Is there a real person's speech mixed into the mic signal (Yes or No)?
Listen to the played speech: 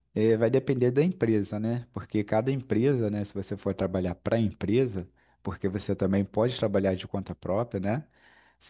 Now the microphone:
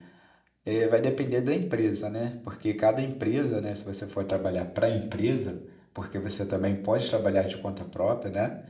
No